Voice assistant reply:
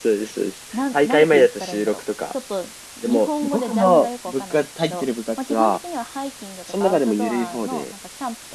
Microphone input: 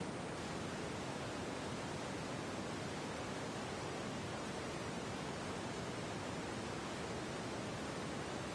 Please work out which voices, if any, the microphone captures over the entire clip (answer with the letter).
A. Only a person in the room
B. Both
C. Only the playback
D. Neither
D